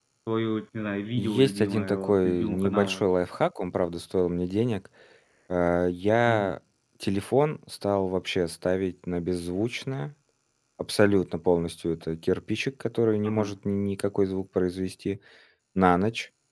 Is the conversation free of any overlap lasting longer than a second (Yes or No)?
No